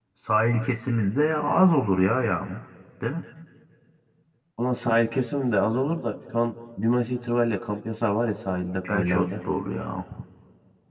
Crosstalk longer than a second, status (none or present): none